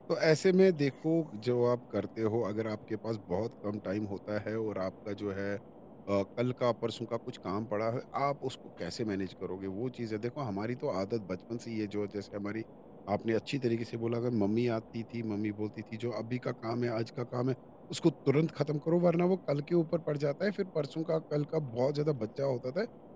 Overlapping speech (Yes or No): No